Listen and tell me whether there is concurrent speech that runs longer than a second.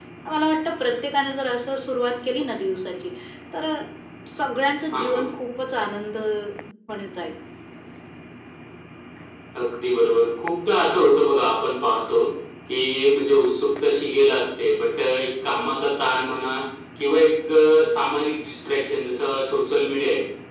No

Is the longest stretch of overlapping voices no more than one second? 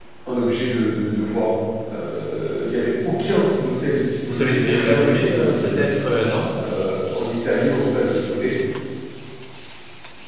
No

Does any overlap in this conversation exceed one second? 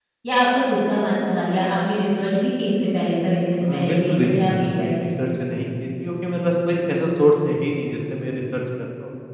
Yes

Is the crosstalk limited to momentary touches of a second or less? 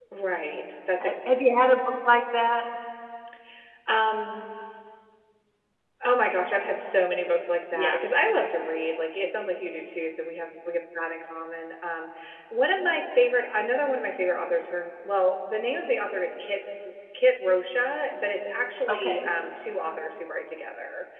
Yes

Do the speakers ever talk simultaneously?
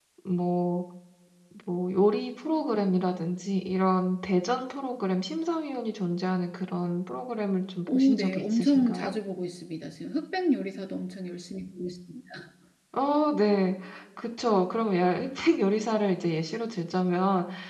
Yes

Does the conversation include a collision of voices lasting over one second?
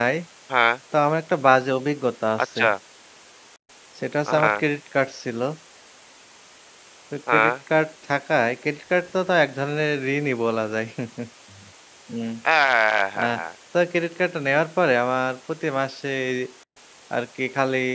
No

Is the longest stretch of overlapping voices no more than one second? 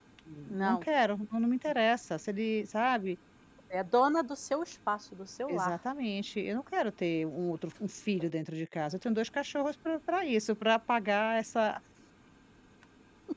Yes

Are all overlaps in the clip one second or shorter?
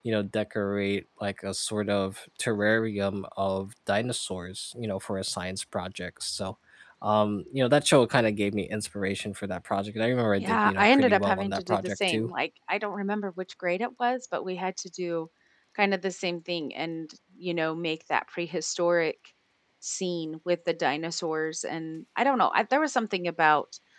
No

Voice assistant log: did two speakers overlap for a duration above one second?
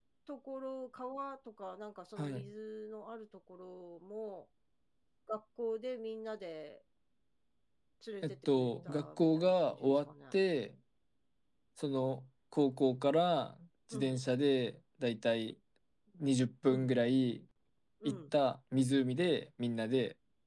Yes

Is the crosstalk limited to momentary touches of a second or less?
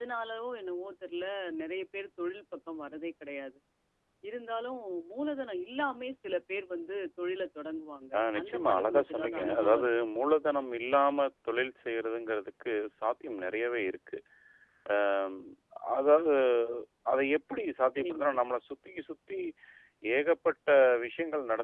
No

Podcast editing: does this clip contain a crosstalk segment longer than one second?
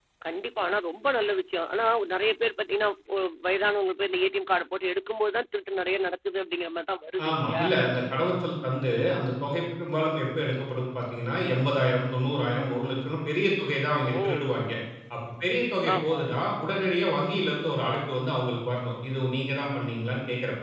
No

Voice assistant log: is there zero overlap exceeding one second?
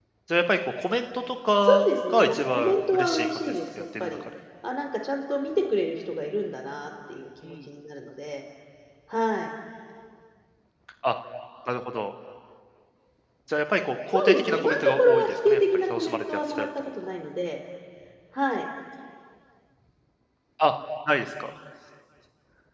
No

